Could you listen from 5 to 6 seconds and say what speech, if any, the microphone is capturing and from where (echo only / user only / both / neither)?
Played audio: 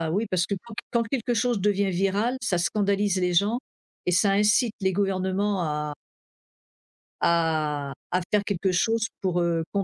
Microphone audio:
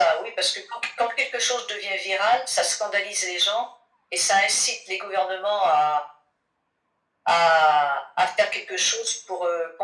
echo only